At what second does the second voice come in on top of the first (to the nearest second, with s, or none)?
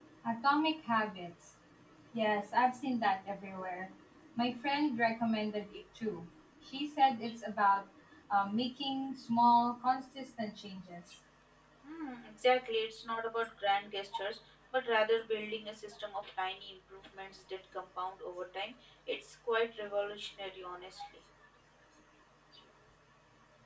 none